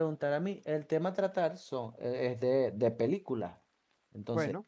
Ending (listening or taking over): listening